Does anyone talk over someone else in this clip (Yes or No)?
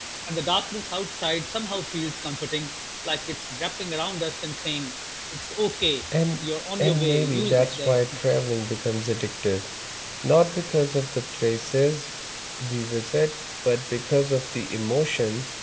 Yes